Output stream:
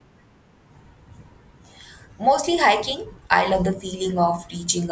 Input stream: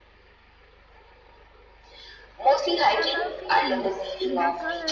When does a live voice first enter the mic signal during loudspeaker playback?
2.9 s

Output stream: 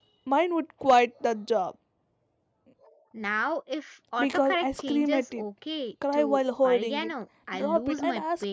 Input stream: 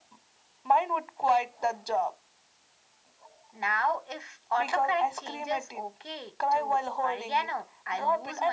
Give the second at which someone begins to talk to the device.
none

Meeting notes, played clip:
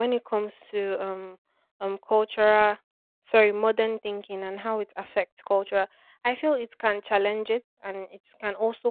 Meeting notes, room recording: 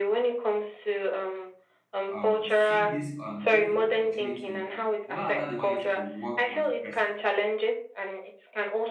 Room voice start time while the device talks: 2.1 s

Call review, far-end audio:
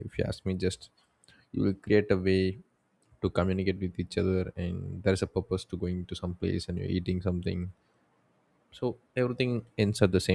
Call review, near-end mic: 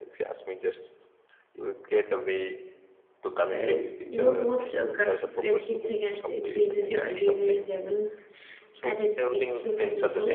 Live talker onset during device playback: 3.6 s

